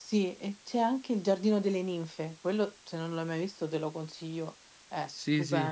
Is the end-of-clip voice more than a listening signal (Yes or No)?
Yes